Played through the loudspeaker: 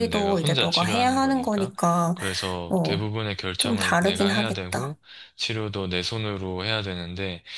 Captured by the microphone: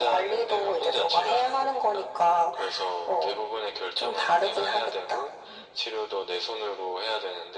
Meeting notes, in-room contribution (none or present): none